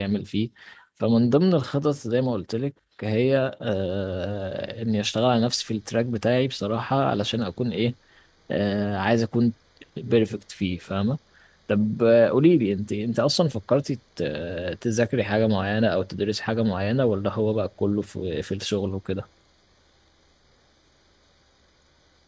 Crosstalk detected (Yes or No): No